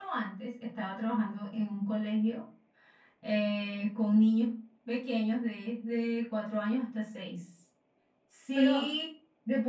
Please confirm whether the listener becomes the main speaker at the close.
No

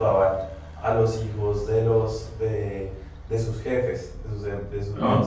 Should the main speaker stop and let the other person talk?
No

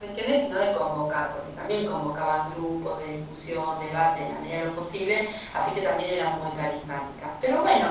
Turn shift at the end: No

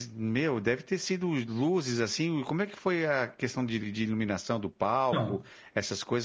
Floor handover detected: No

